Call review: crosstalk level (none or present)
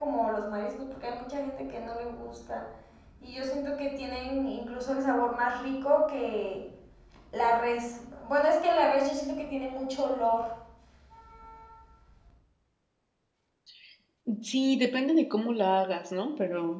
none